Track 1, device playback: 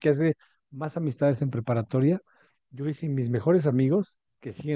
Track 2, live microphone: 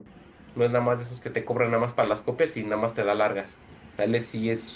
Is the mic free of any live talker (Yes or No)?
No